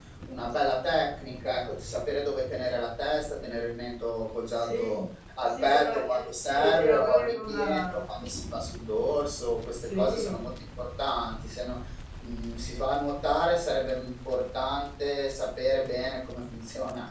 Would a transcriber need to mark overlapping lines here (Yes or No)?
Yes